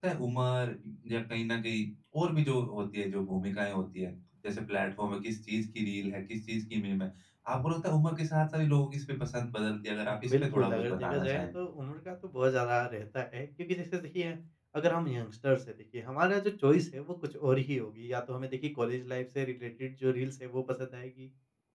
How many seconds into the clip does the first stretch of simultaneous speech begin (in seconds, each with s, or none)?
10.1 s